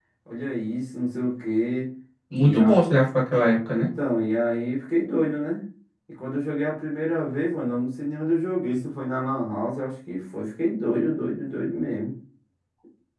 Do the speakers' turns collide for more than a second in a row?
No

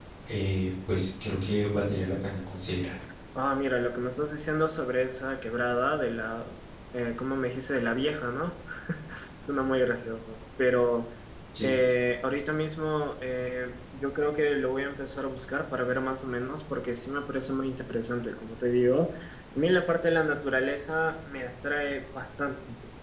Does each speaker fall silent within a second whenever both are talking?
Yes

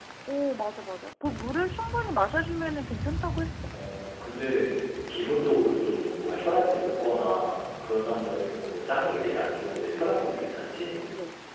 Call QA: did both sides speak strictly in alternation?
Yes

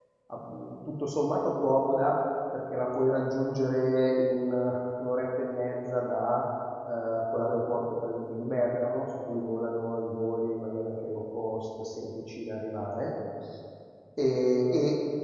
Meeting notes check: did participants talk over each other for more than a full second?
No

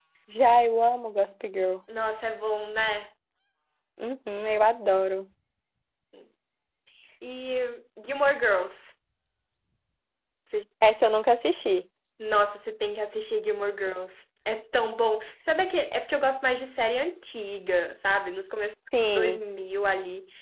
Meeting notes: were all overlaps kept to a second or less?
Yes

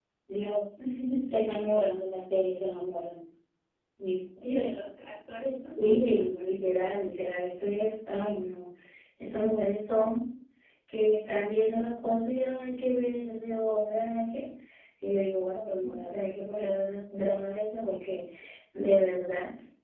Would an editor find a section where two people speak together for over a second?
Yes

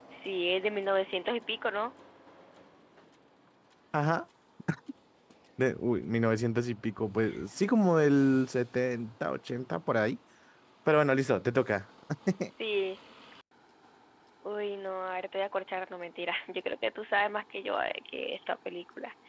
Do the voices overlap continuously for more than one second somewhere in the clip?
No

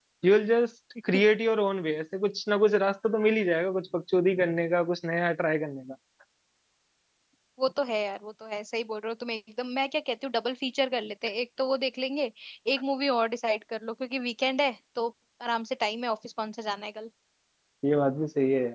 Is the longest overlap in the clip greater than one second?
No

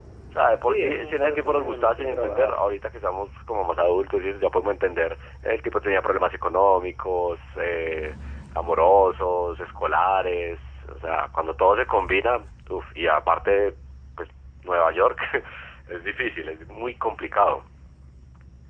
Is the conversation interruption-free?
No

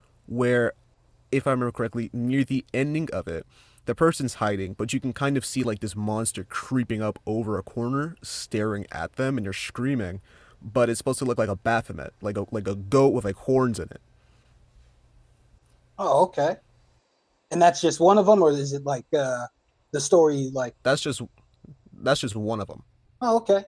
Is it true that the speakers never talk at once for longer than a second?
Yes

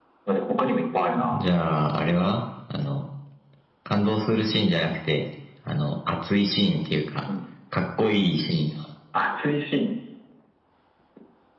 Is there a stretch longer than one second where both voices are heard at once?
No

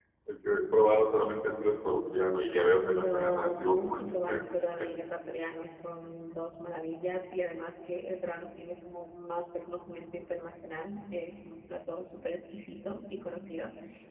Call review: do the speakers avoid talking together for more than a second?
No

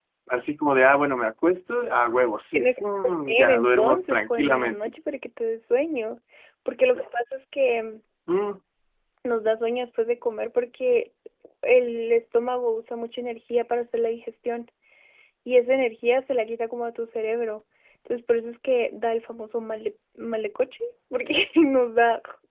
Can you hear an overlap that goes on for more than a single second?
Yes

